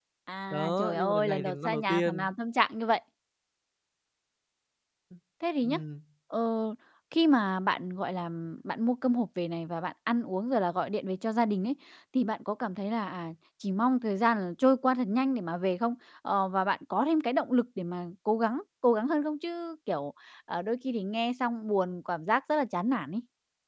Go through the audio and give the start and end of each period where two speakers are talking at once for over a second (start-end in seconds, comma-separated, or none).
0.5-2.3